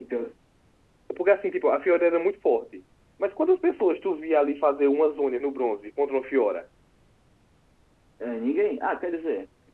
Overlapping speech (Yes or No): No